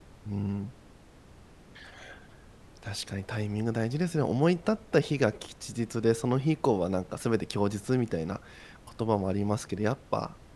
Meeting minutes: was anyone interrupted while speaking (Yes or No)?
No